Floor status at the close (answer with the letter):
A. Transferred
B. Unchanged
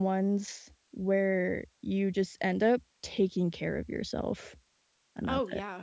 A